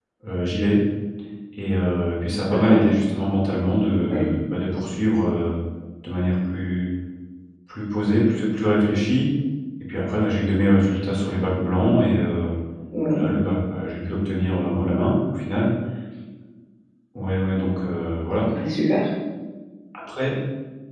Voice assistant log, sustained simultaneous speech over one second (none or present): none